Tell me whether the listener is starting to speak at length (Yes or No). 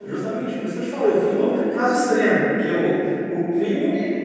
No